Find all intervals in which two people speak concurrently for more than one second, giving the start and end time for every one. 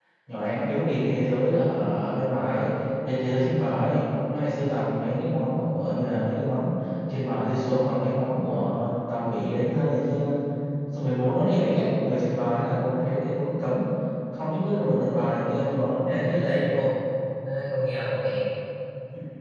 none

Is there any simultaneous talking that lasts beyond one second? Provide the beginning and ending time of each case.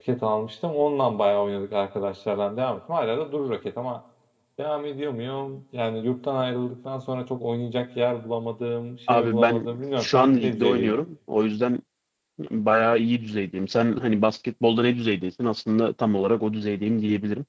9.1-11.0

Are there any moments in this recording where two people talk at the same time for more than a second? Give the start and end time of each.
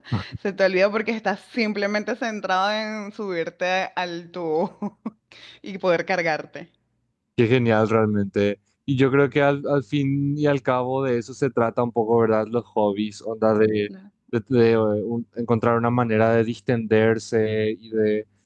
none

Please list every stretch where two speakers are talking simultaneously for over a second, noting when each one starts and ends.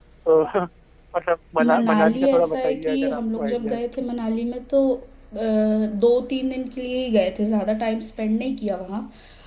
1.7-3.8

